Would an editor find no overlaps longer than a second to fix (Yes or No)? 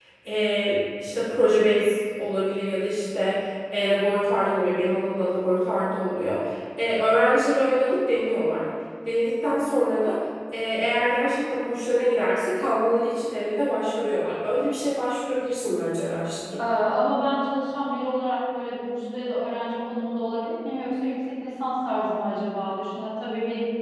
Yes